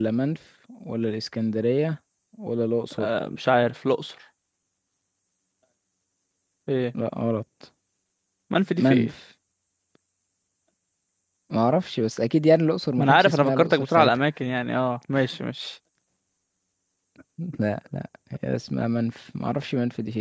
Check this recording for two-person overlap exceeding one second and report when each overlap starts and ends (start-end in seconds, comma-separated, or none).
13.0-14.2